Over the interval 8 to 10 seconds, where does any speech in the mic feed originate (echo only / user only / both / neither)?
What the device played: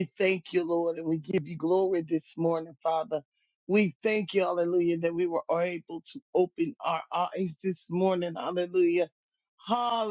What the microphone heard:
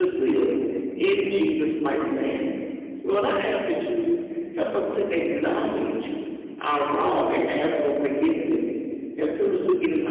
user only